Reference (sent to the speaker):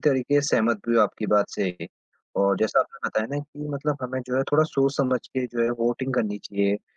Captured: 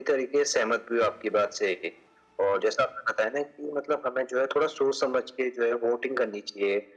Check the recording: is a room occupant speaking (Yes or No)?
No